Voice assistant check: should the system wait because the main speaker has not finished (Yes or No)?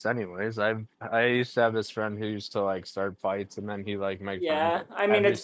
No